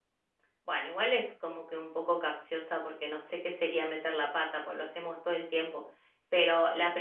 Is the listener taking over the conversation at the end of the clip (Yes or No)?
No